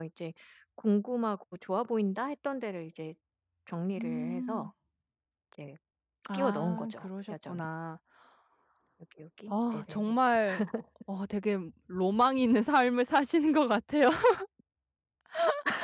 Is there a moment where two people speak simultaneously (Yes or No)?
Yes